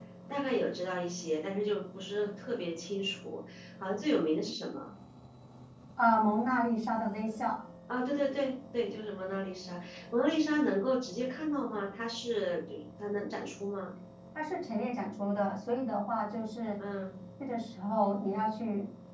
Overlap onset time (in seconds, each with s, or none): none